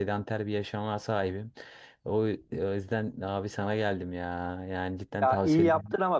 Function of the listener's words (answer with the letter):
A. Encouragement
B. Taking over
B